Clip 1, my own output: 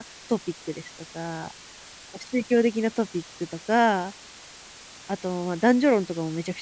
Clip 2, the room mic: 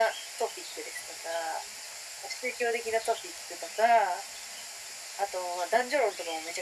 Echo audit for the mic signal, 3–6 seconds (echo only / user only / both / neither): echo only